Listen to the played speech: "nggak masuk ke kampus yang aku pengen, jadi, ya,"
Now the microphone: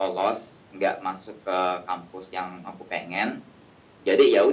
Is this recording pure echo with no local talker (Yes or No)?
Yes